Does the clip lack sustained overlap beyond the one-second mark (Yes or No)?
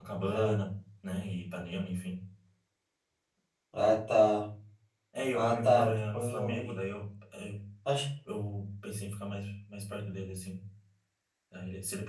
No